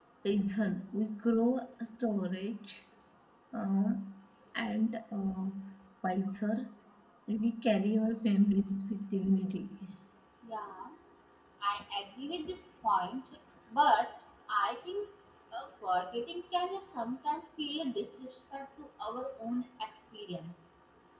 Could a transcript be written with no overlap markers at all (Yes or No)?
Yes